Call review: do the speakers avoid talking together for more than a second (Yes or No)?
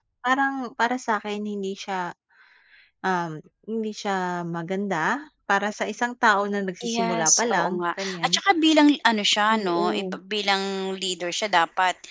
No